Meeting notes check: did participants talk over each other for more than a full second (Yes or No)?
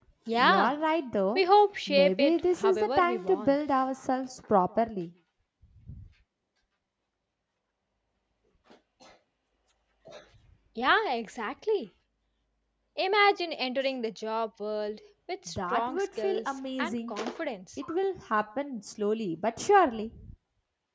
Yes